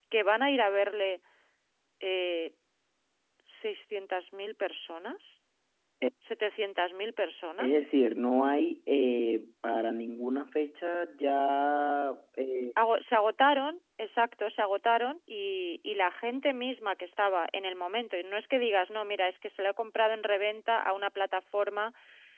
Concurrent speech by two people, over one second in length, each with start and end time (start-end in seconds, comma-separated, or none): none